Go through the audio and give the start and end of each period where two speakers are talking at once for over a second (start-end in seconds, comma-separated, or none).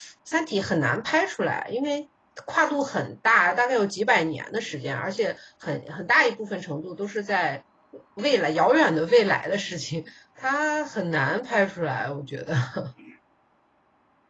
none